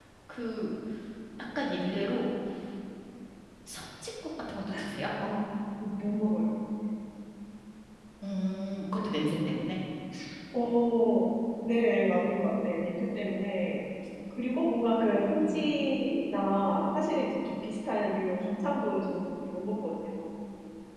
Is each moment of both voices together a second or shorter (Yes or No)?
Yes